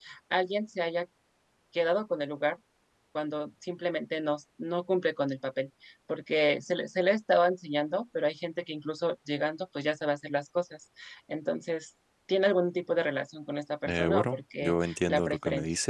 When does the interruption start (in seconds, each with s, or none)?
13.9 s